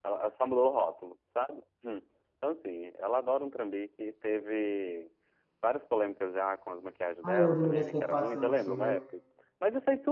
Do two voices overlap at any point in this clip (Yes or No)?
Yes